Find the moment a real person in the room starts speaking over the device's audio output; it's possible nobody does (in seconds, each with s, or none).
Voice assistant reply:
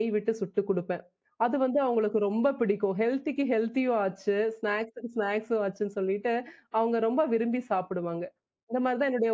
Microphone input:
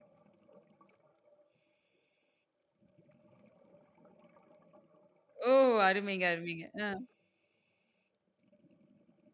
5.5 s